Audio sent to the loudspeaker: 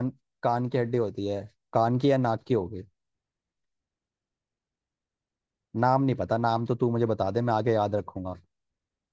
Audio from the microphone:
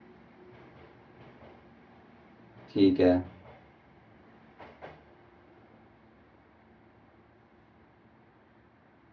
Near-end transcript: ठीक है

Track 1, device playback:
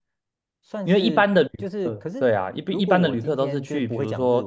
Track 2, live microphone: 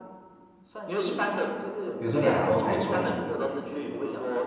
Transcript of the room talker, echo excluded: 比如说两周才够。

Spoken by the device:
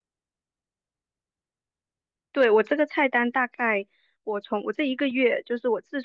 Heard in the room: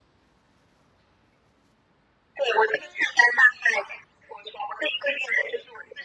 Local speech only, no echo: none

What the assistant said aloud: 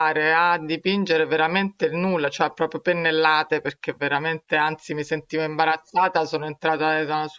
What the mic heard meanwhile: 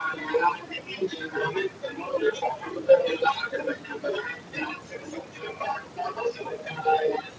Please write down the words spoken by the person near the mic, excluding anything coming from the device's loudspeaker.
none

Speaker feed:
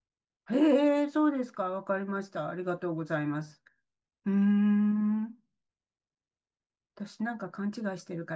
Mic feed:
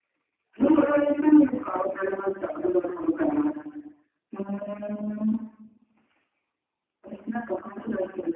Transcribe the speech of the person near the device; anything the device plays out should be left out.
none

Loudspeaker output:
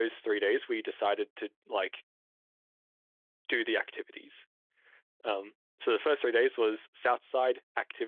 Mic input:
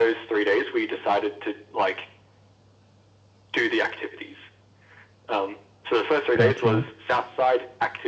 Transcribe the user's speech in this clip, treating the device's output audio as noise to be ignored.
Gotcha.

